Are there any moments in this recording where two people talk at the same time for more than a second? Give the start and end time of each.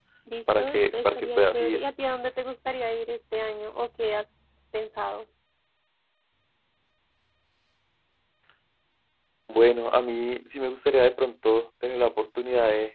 0.6-1.8

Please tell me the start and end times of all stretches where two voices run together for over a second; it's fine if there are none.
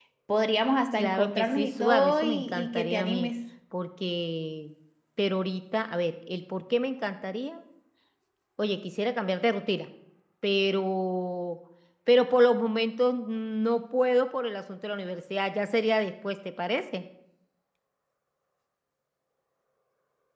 1.0-3.3

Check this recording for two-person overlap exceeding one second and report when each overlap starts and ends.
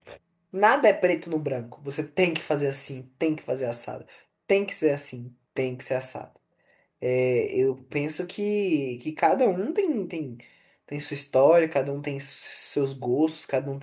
none

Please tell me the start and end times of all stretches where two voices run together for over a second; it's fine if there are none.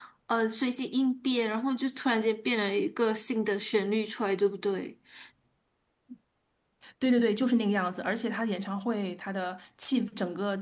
none

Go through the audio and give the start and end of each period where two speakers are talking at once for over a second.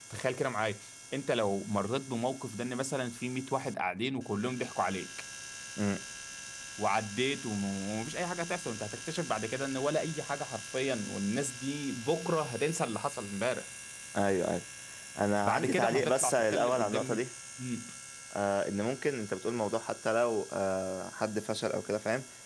15.4-17.2

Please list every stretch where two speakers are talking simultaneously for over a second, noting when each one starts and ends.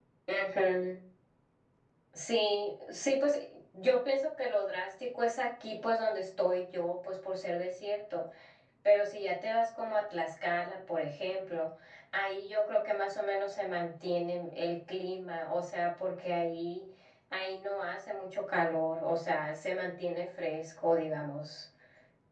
none

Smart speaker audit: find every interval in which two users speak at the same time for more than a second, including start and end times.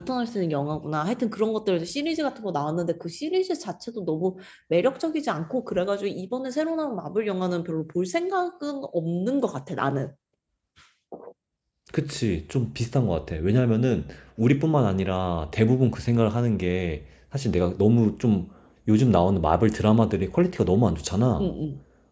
none

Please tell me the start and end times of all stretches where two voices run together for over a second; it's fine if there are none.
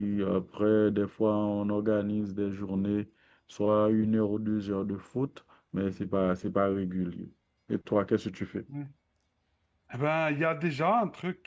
none

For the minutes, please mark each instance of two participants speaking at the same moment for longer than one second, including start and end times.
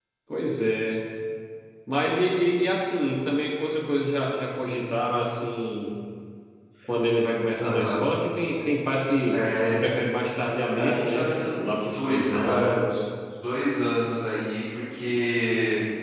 10.8-12.7

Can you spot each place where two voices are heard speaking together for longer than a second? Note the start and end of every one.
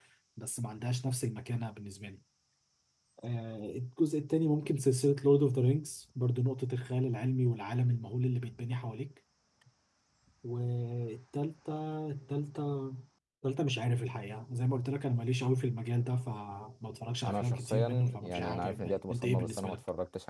17.2-19.8

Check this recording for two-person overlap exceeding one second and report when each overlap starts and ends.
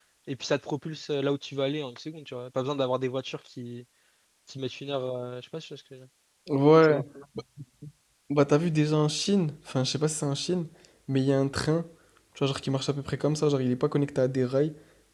none

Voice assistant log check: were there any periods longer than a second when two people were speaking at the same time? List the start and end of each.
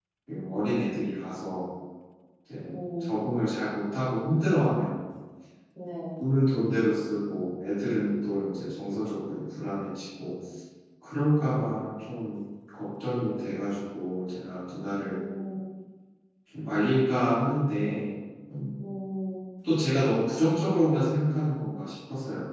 none

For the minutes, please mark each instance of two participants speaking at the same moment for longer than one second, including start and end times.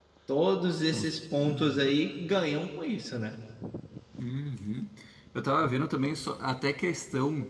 none

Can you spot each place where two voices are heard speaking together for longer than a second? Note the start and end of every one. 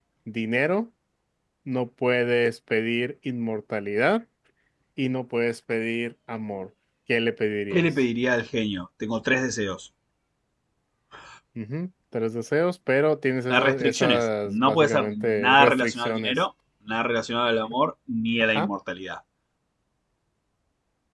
13.5-16.3

